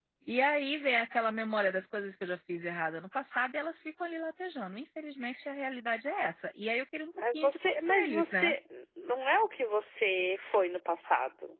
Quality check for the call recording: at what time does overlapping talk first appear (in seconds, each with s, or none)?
7.1 s